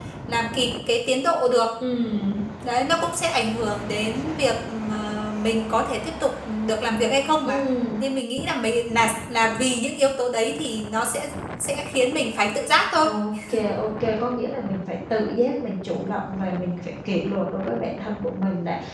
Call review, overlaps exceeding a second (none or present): none